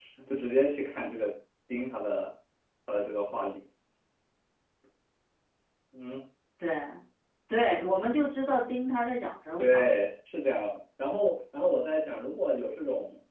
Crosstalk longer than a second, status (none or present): none